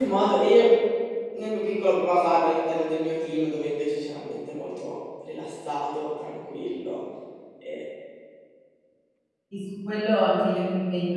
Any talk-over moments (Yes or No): No